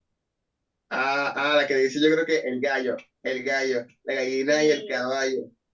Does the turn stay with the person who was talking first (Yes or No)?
Yes